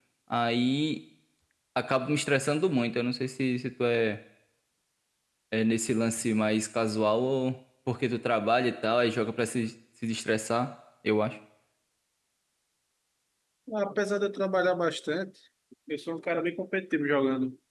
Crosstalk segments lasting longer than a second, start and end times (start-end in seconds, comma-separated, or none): none